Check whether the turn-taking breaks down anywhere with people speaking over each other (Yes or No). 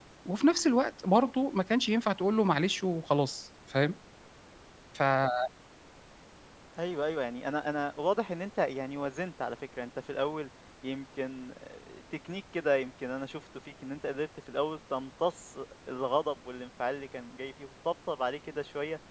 No